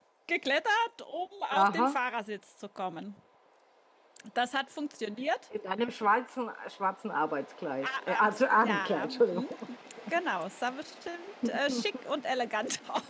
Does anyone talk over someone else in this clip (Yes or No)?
Yes